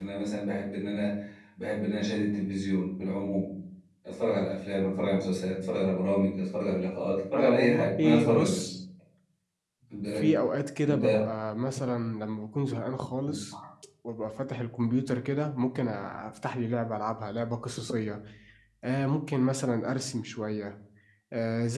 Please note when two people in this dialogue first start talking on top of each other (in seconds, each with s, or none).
7.3 s